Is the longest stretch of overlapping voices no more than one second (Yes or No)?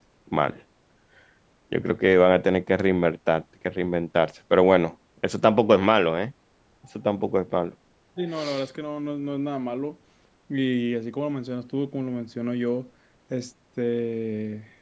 Yes